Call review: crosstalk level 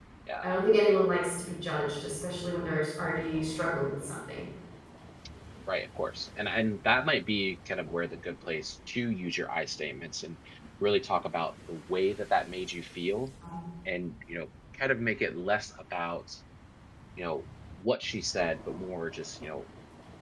none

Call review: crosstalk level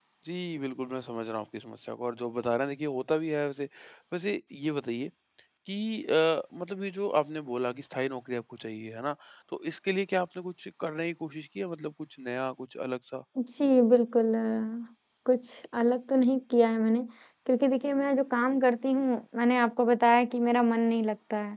none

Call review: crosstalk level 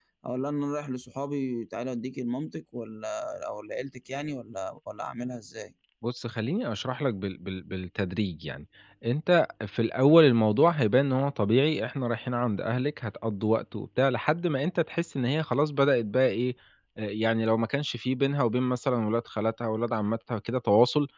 none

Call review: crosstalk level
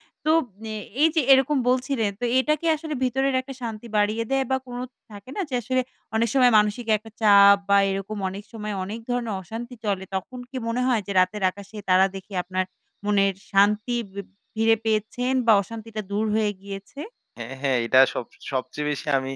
none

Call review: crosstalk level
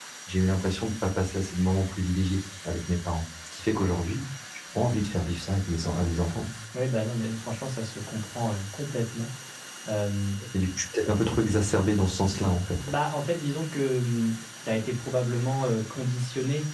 none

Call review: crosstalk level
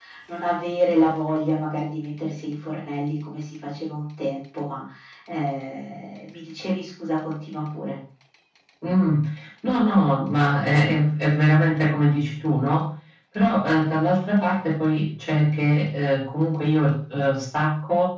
none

